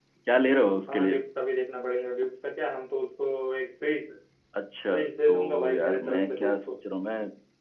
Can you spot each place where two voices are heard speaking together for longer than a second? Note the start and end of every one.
5.3-6.8

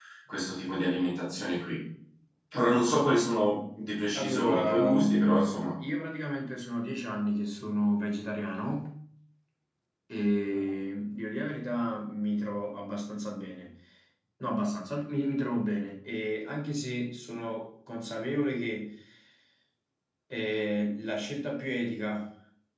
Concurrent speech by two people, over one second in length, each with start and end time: 4.1-5.7

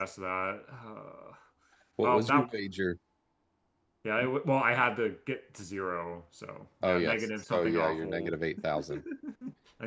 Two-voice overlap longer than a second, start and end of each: 6.8-8.3

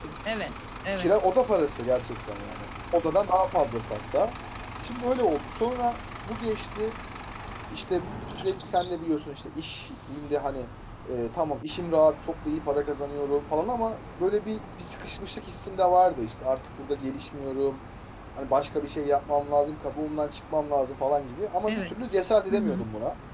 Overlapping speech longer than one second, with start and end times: none

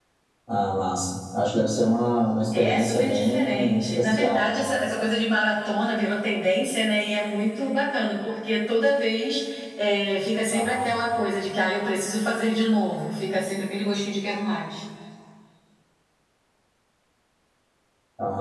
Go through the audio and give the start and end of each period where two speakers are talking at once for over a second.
2.5-4.6

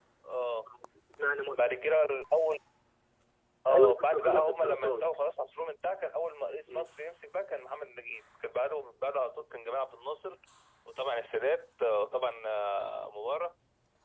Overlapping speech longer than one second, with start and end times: 3.7-5.0

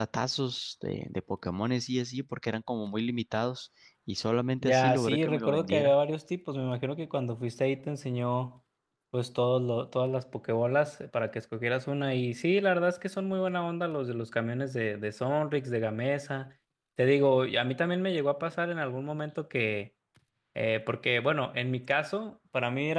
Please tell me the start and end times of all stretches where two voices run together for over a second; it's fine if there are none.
4.6-5.9

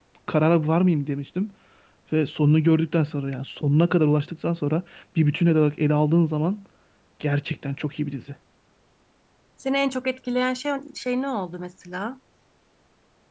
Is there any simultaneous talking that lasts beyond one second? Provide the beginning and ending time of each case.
none

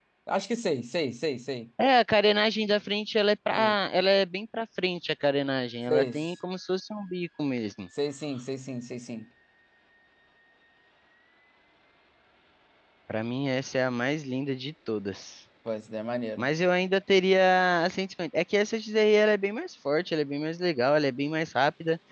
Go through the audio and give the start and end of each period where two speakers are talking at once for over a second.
none

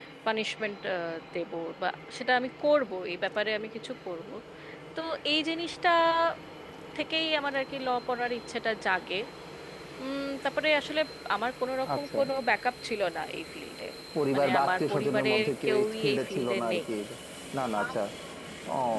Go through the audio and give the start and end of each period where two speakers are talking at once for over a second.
14.3-16.8

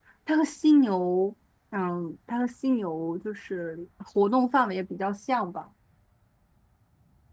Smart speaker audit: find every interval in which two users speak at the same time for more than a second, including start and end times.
none

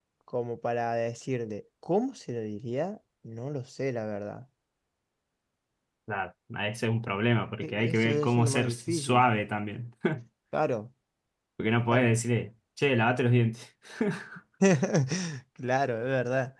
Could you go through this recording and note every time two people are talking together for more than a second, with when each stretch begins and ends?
7.6-9.2

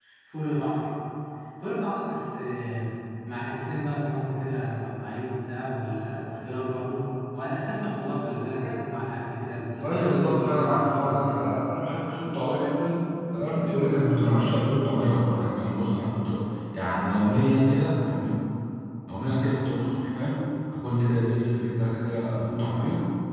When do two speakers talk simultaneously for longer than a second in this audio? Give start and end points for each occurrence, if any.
9.8-11.4

